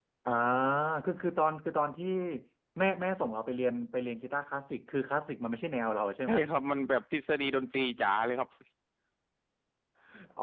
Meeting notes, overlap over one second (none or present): none